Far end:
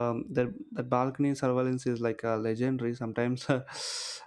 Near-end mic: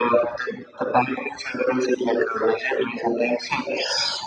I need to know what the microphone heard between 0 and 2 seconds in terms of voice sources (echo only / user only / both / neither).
echo only